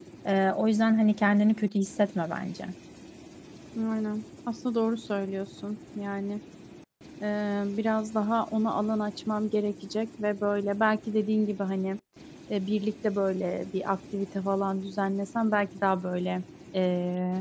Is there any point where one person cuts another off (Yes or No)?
No